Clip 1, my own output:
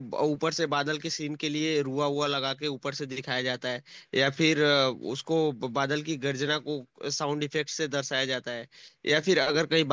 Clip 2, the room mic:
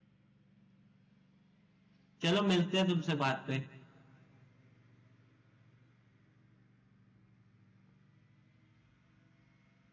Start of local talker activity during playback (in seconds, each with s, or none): 2.2 s